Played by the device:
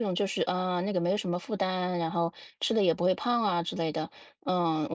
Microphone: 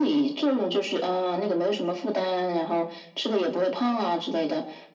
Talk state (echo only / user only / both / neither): echo only